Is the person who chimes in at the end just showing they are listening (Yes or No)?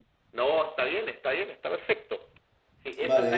No